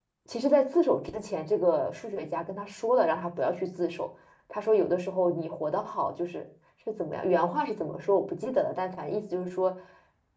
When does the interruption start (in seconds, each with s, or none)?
none